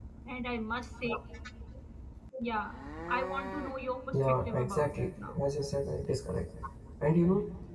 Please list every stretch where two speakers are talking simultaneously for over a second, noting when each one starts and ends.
4.1-5.4

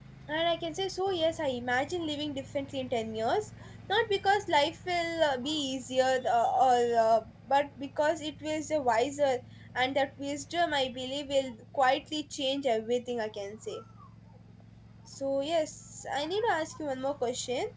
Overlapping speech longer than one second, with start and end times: none

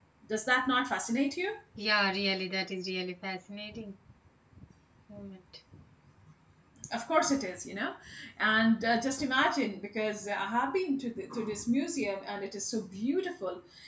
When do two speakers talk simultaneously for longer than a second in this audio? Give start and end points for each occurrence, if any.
none

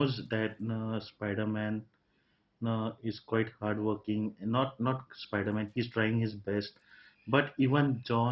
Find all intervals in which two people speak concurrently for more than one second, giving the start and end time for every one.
none

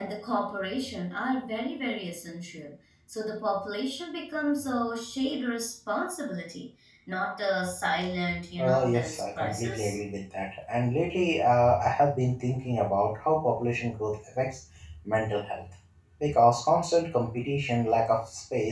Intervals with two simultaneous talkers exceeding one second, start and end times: 8.6-10.0

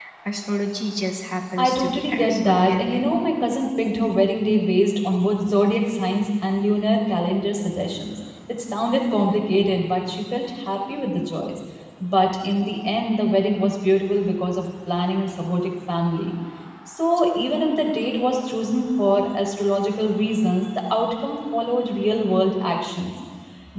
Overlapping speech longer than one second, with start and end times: 1.6-3.1

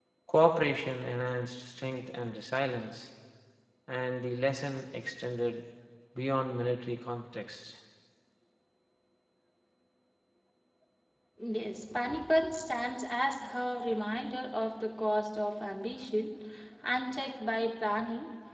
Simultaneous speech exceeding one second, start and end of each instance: none

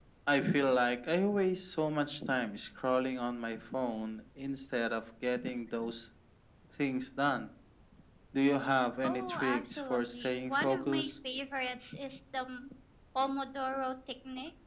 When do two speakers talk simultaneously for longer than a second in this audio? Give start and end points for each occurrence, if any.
9.0-11.1

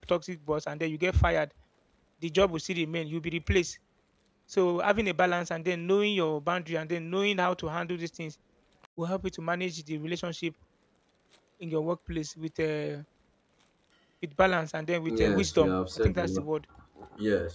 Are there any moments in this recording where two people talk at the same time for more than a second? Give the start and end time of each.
15.1-16.4

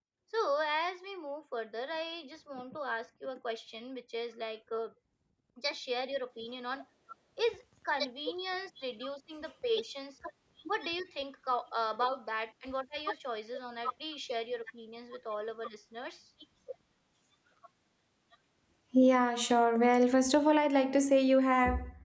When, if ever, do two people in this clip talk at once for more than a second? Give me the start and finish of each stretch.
none

